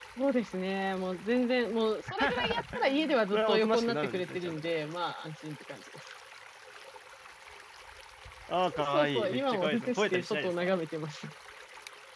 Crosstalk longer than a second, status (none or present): present